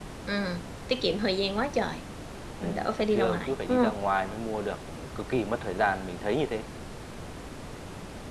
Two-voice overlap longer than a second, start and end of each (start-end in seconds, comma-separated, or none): 2.6-3.9